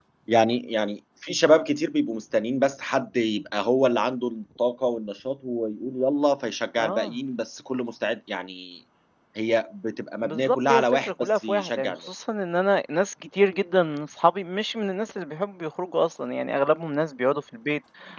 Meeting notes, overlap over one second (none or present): present